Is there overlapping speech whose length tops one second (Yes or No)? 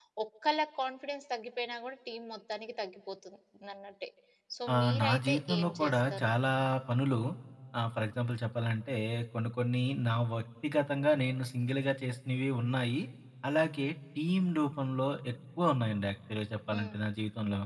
Yes